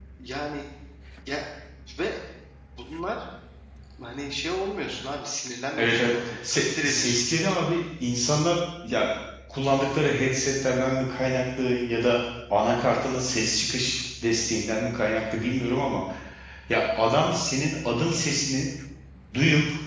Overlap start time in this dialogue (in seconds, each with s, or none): 5.8 s